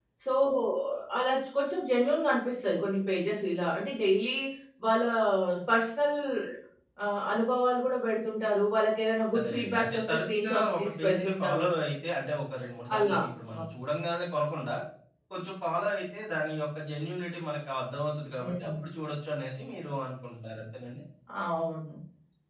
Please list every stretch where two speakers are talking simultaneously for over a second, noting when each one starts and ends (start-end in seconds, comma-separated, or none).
9.4-11.7